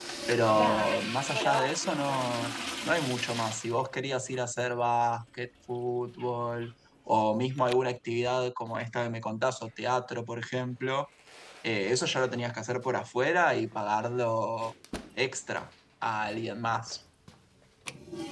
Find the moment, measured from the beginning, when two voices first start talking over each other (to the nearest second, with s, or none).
1 s